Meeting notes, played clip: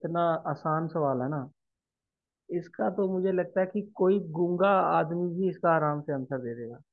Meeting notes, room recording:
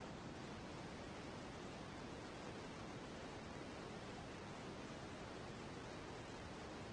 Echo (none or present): none